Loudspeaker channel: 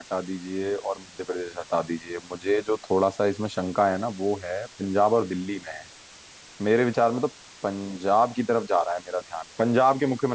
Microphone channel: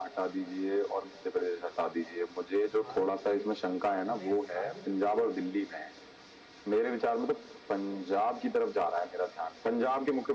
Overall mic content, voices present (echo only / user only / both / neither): both